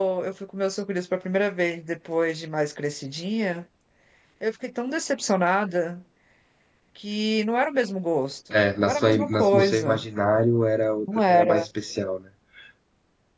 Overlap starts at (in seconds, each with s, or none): 8.8 s